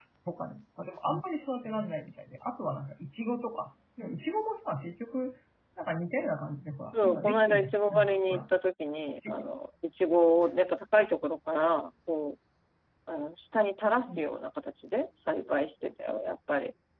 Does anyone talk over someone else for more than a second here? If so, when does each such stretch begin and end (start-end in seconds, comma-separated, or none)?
7.0-8.4